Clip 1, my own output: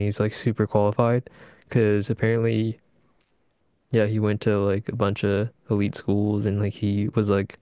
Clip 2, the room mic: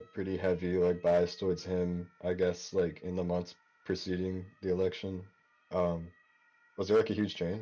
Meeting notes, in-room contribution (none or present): present